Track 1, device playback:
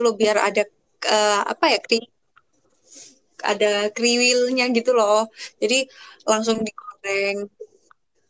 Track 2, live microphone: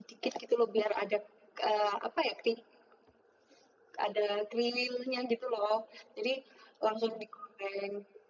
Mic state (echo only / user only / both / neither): echo only